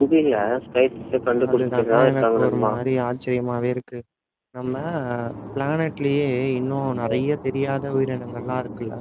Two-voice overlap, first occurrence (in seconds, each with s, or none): 1.5 s